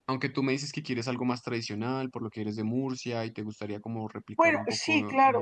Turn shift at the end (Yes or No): Yes